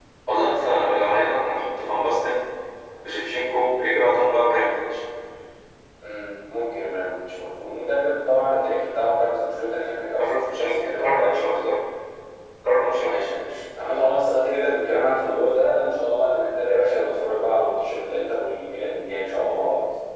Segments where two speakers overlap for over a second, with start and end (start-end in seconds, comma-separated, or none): 10.2-11.6